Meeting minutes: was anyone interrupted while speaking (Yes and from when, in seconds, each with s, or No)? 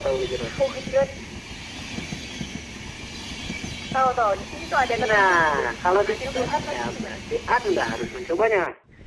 Yes, from 4.9 s